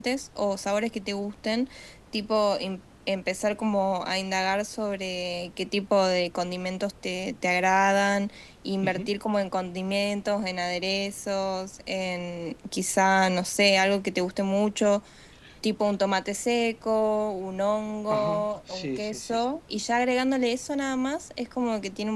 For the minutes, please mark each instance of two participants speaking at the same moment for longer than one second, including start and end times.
18.1-19.4

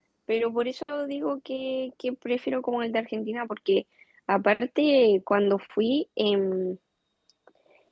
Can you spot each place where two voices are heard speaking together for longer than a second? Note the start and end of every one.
none

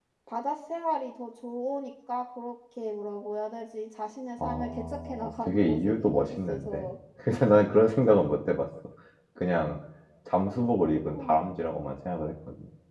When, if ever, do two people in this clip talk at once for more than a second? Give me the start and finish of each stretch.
4.4-6.9

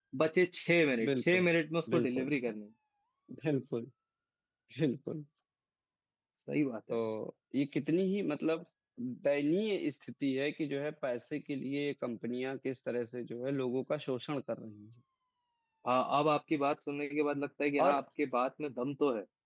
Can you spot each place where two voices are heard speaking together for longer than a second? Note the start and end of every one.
none

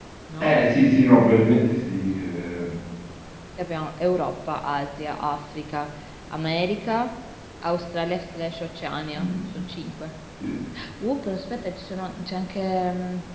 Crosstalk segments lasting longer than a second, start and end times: none

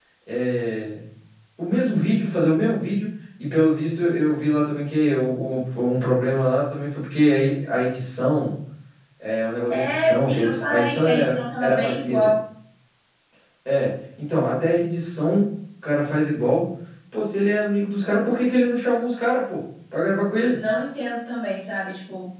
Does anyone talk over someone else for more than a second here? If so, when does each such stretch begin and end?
9.7-12.3

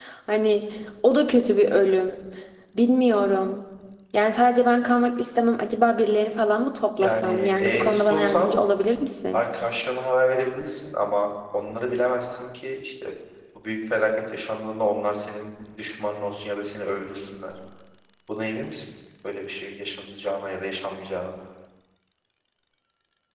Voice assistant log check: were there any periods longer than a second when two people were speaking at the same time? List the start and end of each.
7.0-8.5

